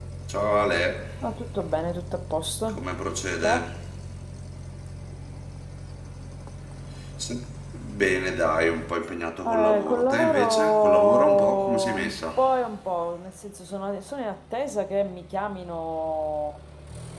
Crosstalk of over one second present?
Yes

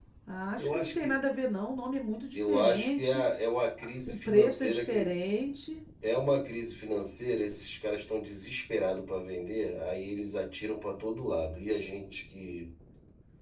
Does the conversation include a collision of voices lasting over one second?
Yes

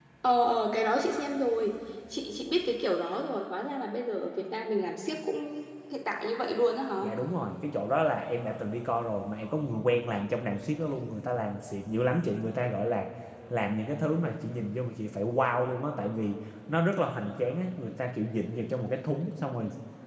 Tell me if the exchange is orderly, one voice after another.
Yes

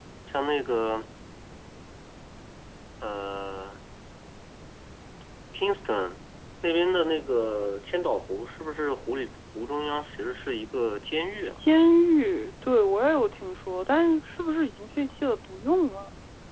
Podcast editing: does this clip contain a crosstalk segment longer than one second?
No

